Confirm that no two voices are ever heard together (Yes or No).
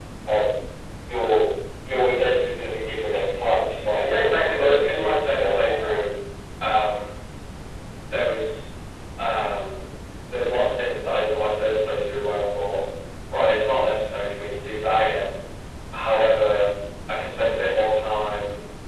No